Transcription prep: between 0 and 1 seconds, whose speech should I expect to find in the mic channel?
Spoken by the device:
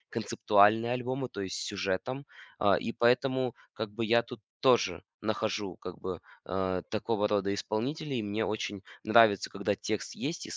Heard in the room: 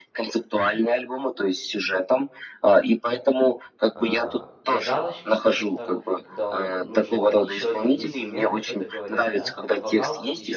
echo only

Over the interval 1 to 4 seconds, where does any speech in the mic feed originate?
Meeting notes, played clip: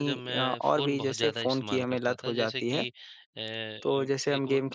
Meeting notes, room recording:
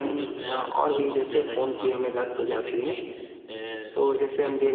echo only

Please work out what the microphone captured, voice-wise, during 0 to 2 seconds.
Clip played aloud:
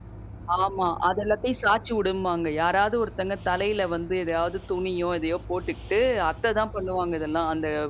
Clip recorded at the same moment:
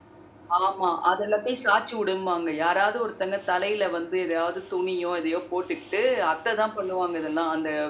echo only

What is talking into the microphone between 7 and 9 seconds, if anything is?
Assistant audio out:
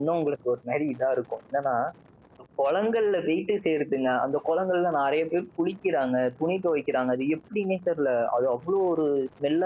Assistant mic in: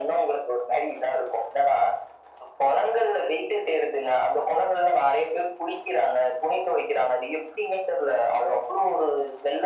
echo only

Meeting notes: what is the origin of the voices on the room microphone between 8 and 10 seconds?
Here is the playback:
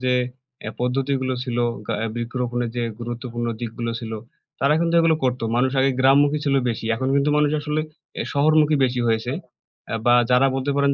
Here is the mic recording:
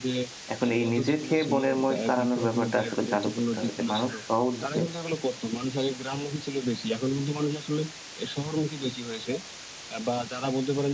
echo only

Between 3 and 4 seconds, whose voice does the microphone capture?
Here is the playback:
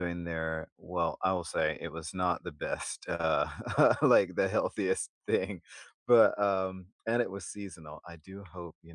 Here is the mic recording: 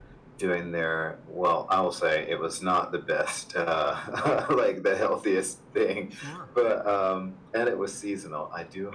echo only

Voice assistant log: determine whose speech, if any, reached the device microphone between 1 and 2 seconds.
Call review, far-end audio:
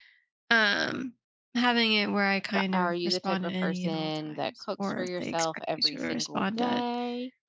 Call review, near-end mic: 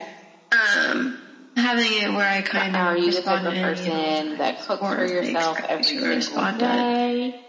echo only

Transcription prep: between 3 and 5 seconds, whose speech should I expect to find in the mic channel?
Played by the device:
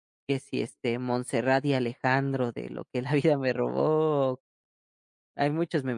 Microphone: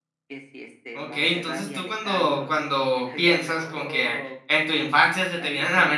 both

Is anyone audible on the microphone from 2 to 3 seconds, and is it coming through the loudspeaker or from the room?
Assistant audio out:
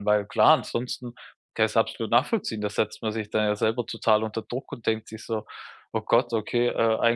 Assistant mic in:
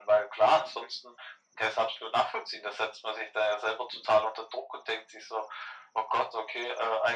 echo only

